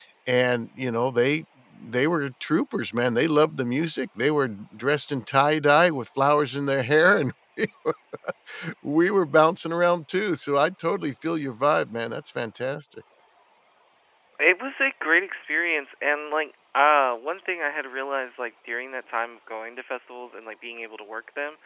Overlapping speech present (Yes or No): No